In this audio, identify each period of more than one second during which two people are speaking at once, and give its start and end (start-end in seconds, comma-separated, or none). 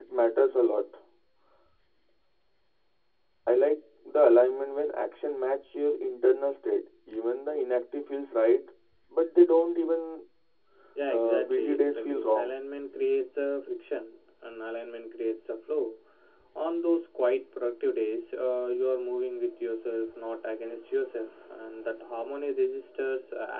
11.1-12.5